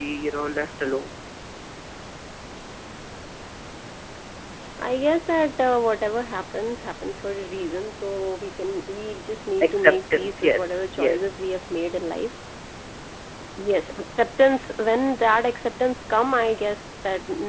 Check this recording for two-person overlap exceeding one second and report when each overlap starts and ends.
9.6-11.4

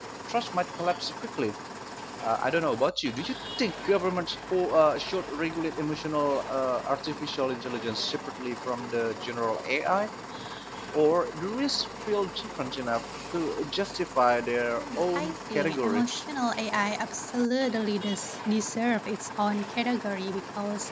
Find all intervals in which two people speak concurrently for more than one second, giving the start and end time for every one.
14.8-16.0

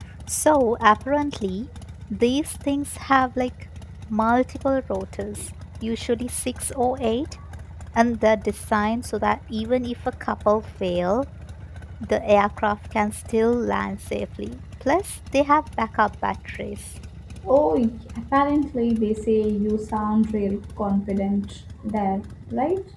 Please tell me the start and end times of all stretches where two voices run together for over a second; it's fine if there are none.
none

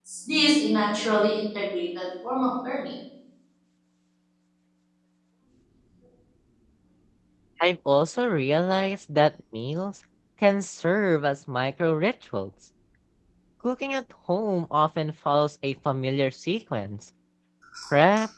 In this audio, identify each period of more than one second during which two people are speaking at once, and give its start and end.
none

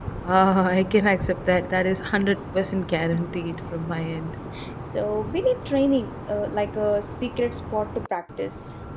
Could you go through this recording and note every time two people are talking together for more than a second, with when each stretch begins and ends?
none

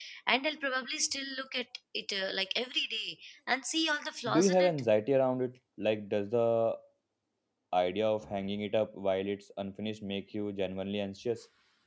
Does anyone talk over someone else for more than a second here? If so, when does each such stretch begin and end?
none

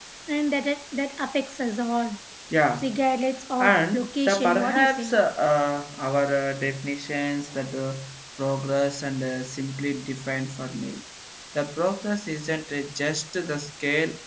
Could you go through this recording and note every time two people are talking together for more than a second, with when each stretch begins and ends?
3.6-5.2

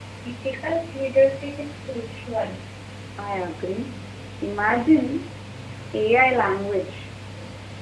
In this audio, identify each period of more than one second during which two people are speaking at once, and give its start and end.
none

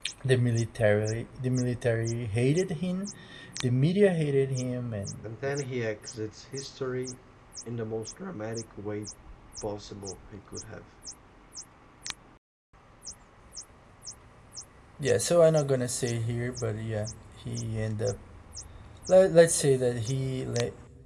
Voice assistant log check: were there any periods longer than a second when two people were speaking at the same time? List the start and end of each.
none

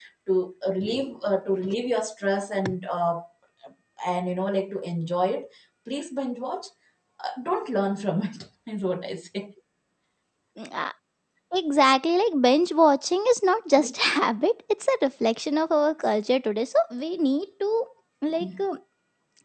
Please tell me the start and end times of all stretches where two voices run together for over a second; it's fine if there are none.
none

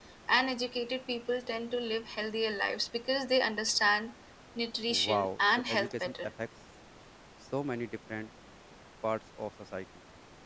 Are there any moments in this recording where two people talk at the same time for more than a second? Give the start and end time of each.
4.9-6.1

